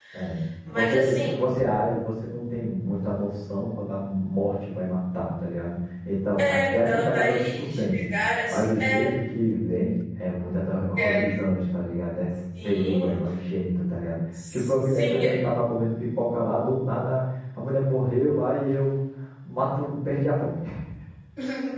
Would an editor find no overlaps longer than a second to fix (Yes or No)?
No